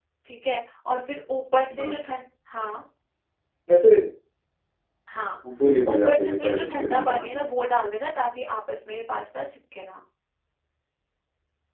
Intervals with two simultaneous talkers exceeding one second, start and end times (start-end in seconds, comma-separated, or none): 5.9-7.5